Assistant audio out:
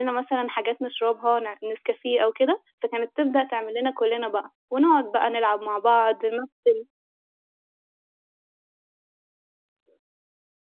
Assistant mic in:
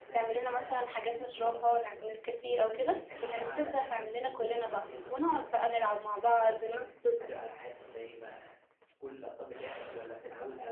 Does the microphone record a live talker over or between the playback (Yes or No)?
Yes